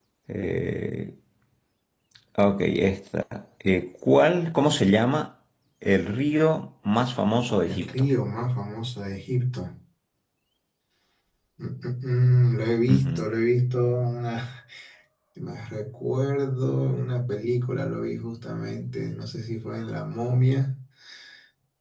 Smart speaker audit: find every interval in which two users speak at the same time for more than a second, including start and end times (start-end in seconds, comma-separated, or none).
none